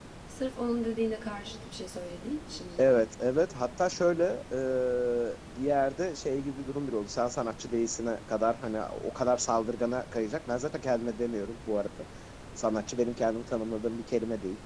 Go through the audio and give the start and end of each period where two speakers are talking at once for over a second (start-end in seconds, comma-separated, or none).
none